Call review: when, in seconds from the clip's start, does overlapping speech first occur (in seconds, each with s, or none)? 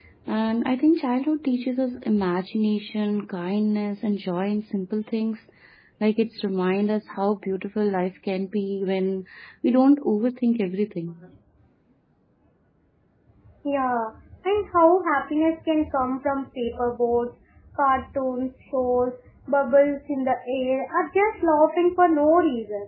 none